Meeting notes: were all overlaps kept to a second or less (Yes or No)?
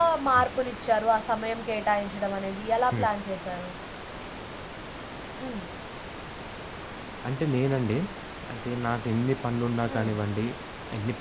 Yes